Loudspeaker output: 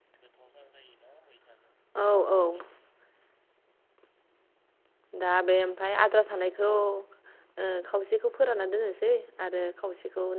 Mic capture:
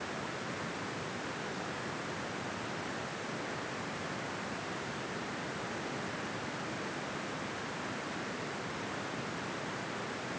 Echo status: none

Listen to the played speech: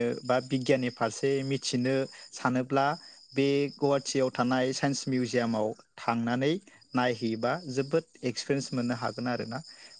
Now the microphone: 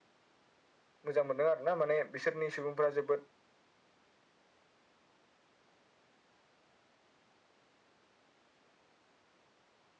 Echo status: none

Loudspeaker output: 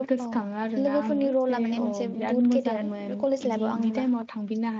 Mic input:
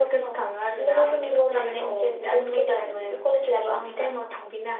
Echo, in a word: present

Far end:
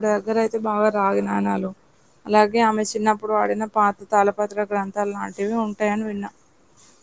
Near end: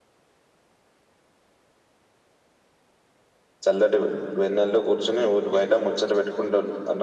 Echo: none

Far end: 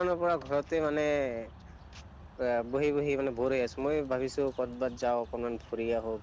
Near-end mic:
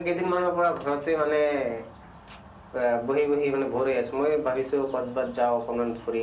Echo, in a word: present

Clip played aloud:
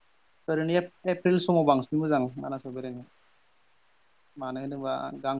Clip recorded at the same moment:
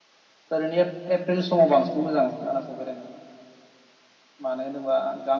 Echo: present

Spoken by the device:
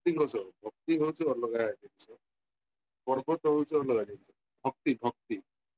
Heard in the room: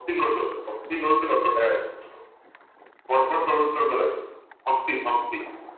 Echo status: present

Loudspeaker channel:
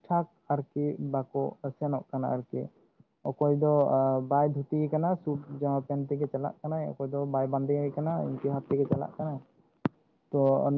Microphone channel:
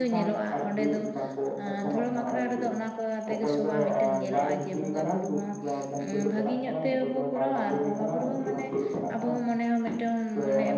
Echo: present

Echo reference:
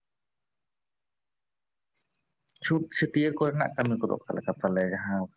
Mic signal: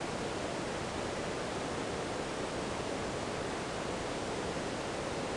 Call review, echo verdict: none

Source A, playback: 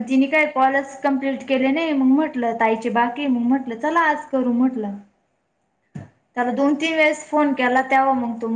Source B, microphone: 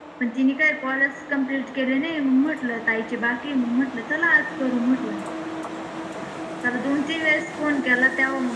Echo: present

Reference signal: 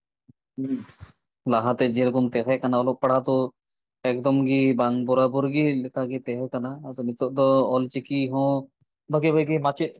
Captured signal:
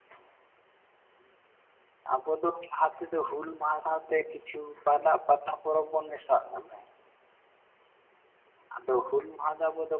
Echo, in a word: none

